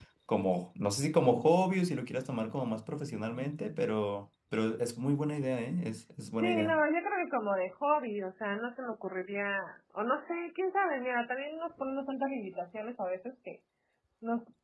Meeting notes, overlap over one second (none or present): none